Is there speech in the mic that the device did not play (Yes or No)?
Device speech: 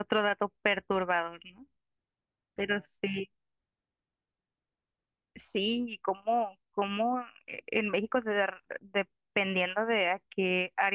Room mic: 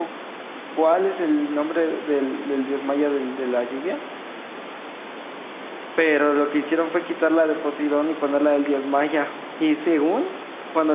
Yes